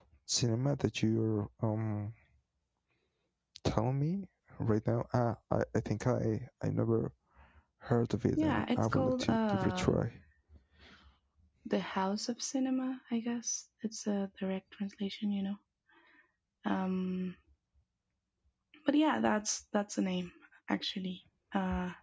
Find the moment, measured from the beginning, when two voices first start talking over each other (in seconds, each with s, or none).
8.4 s